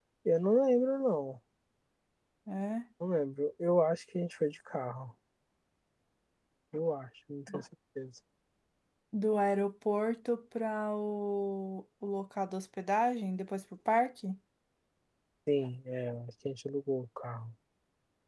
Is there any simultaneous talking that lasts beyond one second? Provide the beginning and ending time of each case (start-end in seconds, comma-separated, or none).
none